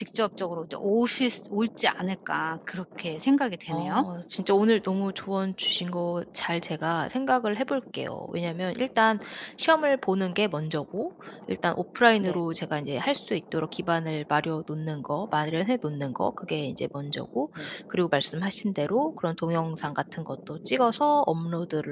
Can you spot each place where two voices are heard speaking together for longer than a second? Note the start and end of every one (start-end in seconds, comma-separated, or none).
none